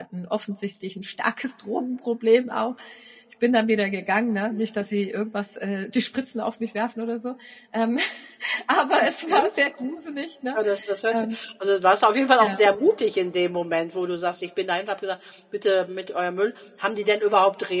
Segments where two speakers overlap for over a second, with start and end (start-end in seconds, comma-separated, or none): none